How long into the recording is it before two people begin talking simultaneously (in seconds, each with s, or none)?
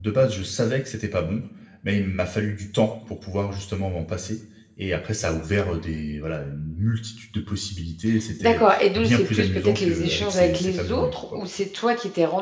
8.4 s